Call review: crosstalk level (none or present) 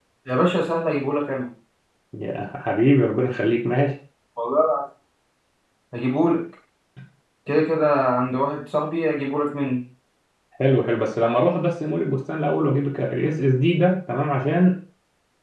none